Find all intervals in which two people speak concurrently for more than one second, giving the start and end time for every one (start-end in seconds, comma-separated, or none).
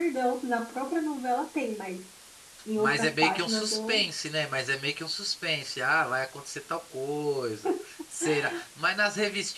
2.8-4.1